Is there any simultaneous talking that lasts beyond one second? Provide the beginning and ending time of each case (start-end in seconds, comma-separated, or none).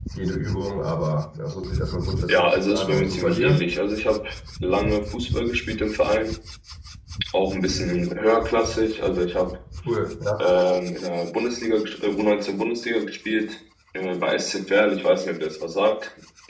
2.3-3.6